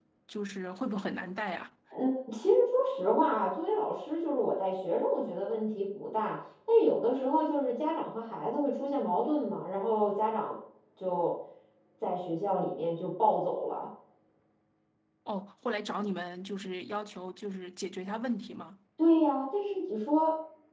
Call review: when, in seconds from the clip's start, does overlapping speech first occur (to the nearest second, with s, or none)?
none